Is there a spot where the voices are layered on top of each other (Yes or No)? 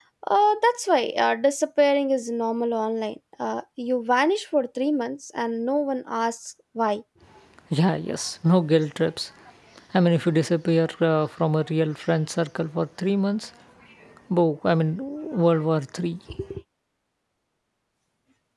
No